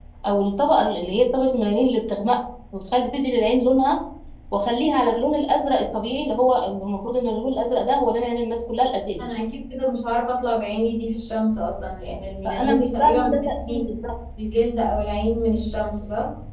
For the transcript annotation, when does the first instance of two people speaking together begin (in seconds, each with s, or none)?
12.4 s